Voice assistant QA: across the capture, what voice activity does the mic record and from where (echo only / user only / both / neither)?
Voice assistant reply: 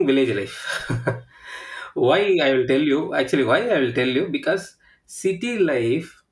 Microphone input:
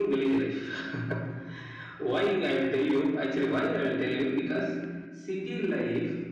echo only